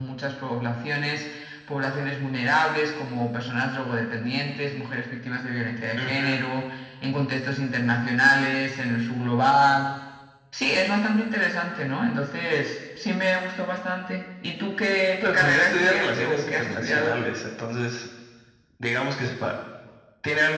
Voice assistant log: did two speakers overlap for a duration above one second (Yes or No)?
Yes